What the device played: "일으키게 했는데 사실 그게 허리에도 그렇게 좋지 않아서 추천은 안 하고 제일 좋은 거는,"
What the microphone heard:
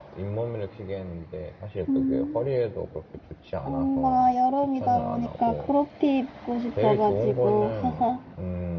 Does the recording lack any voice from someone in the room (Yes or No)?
No